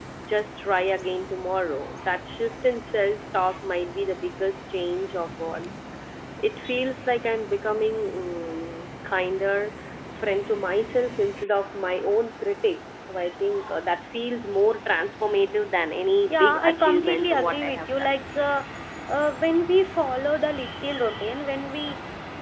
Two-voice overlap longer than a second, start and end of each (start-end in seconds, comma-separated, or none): 16.3-18.1